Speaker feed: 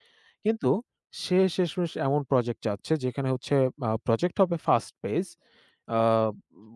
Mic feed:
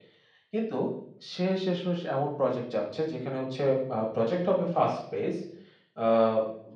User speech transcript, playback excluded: none

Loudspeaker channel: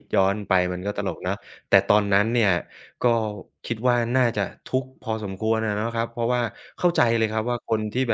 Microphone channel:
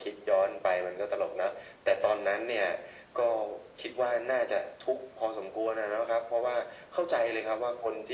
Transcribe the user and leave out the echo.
none

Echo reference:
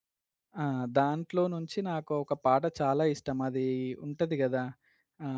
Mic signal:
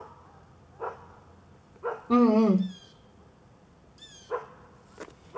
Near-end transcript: హ్మ్. హ్మ్.

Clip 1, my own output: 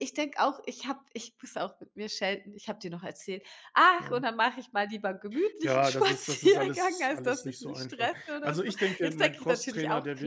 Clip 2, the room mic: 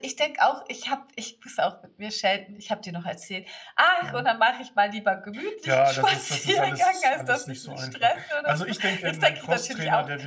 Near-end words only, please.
none

